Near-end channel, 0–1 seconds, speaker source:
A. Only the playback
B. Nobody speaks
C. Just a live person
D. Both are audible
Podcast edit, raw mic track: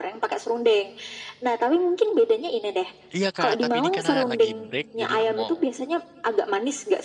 A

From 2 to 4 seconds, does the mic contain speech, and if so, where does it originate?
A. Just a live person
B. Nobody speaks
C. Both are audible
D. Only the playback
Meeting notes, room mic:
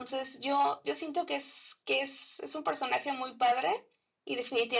A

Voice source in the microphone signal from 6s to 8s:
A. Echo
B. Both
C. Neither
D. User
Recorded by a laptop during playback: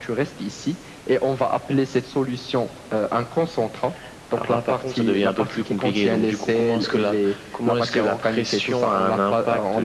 A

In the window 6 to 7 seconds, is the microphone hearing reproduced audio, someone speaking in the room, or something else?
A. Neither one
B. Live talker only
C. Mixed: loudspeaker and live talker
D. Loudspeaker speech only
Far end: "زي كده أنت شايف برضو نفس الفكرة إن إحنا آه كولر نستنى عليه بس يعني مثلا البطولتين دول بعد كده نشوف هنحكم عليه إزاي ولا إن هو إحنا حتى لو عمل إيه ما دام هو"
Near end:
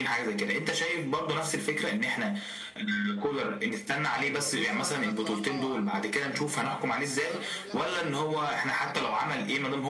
C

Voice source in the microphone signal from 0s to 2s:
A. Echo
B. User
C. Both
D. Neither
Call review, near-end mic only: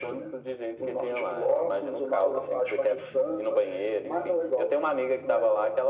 A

